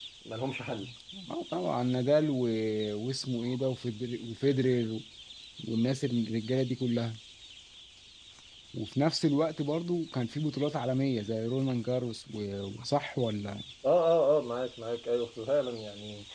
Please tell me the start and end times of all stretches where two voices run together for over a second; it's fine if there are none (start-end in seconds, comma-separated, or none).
none